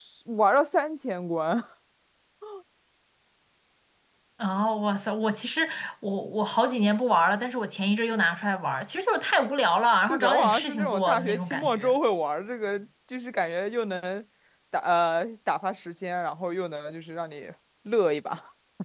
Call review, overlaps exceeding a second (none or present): present